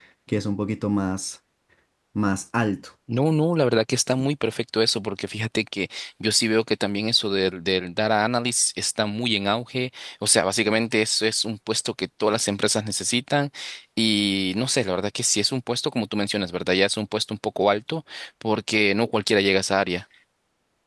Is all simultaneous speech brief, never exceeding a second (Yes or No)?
Yes